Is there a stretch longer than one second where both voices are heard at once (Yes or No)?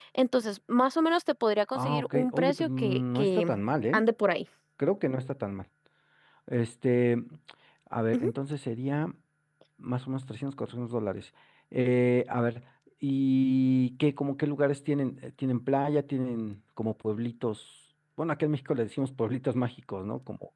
Yes